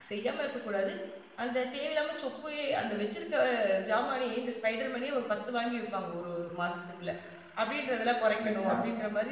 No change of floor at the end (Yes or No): Yes